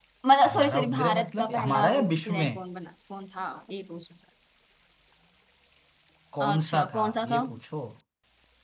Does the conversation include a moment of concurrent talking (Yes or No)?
Yes